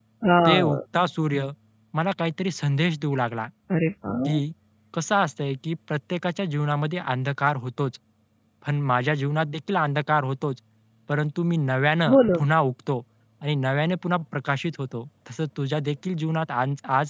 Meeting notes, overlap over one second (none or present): none